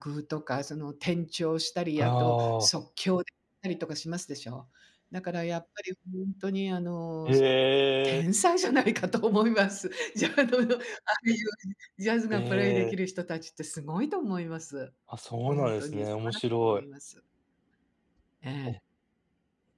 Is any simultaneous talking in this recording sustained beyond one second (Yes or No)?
Yes